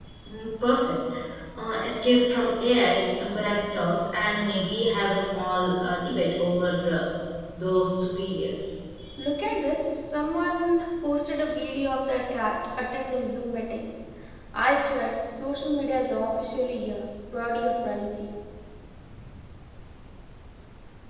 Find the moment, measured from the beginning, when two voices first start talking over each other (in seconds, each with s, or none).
none